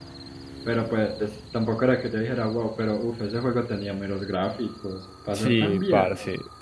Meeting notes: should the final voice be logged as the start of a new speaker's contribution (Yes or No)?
Yes